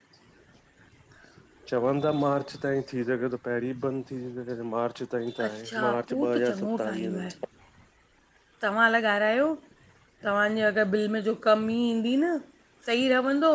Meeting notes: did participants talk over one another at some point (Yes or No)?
Yes